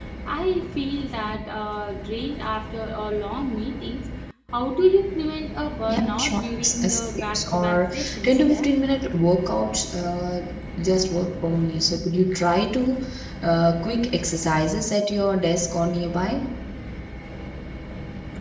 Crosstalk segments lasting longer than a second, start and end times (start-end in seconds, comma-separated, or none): 5.9-8.7